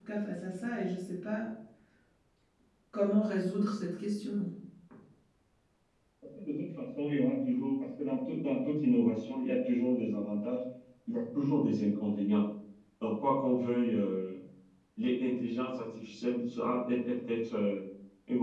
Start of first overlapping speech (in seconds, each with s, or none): none